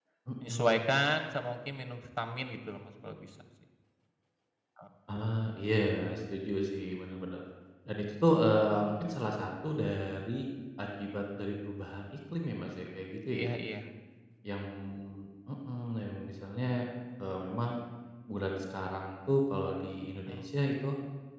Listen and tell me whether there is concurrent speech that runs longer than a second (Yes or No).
No